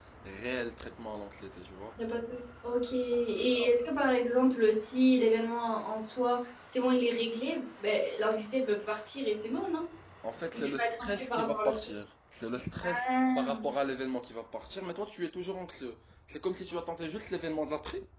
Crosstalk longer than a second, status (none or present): present